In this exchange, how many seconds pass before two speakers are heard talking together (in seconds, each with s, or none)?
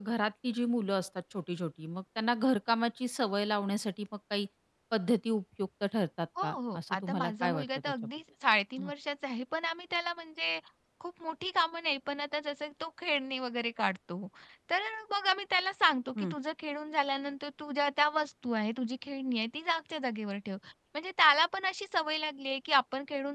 6.4 s